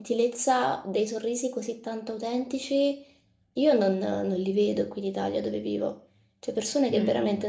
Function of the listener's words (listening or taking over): listening